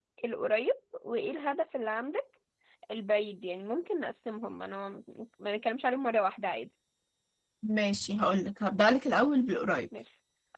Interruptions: none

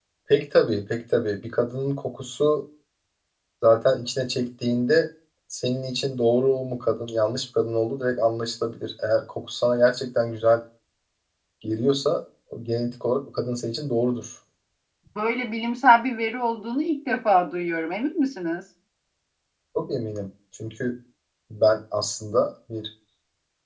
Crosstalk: none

